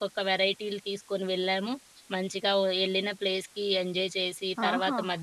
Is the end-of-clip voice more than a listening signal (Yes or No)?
Yes